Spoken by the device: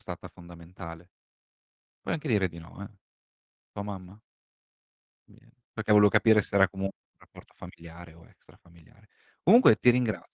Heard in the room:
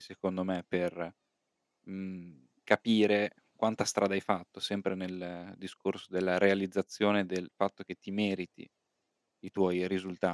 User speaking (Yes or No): Yes